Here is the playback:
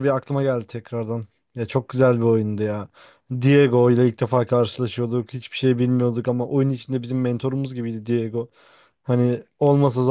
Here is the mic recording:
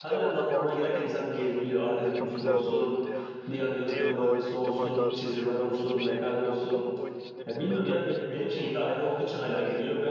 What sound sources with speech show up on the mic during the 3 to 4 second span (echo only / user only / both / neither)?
both